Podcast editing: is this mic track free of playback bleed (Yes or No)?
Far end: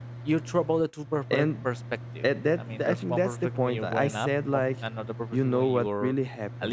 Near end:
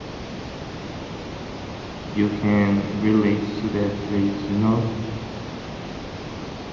Yes